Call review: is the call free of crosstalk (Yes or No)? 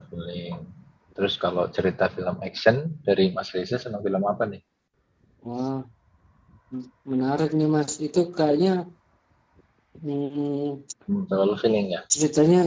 Yes